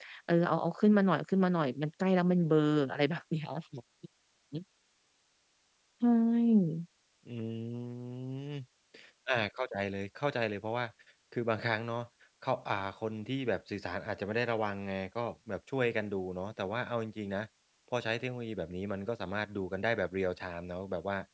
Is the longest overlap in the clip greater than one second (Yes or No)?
No